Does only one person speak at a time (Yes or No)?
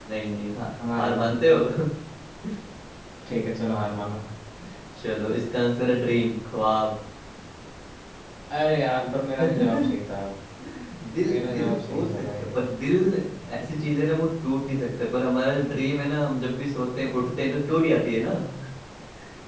No